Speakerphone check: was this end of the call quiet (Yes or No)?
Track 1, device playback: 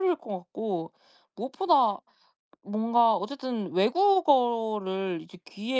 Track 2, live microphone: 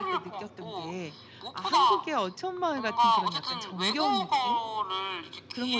No